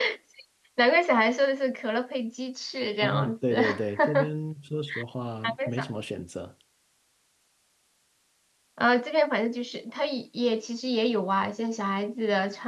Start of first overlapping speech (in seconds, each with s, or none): 3.0 s